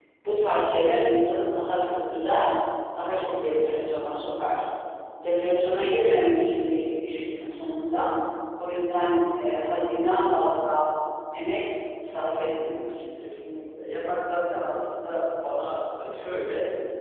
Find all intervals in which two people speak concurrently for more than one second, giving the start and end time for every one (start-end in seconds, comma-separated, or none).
none